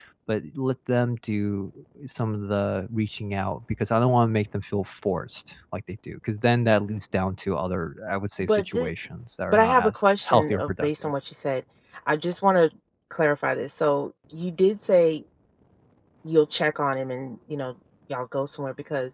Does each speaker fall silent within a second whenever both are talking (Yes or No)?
No